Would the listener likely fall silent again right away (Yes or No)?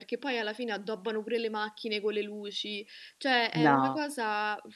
Yes